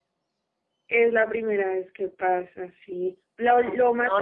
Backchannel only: Yes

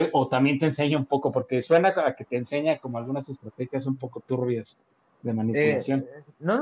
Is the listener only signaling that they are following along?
No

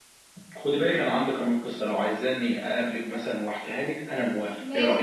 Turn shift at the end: Yes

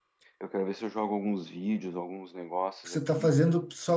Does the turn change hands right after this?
Yes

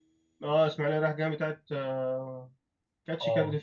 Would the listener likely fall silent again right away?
No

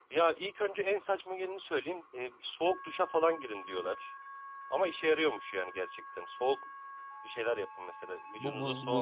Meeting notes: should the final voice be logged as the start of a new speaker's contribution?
Yes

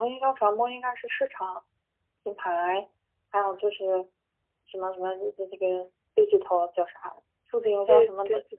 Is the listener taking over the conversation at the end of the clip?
Yes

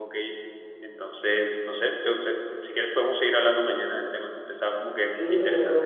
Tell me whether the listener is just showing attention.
No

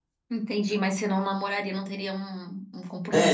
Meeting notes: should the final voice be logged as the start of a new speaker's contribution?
Yes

